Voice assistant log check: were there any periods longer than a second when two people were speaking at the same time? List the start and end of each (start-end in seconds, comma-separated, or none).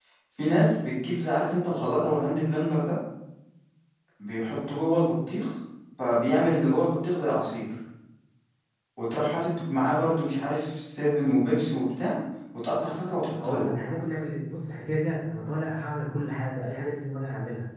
none